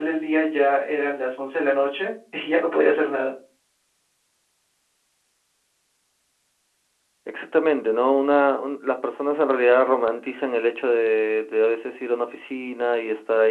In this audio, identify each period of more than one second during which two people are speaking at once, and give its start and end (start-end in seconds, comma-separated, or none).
none